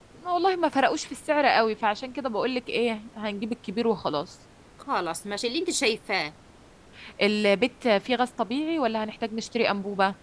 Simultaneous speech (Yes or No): No